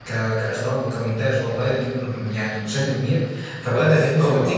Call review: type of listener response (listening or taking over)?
listening